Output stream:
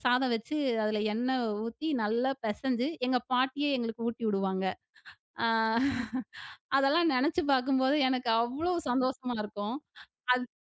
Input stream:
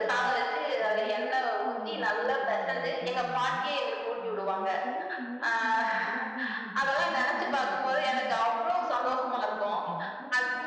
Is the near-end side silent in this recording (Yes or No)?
No